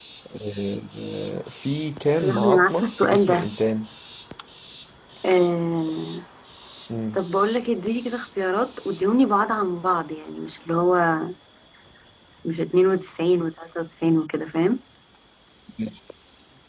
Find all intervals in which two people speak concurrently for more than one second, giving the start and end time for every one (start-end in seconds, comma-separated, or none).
2.2-3.5